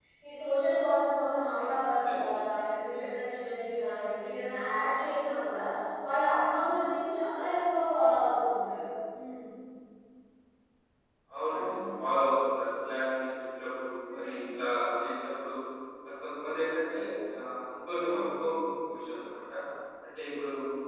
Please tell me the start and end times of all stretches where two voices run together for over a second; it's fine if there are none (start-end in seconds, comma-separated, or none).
none